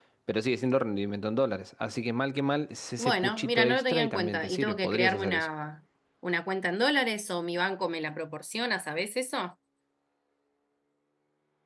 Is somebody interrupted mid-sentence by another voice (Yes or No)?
Yes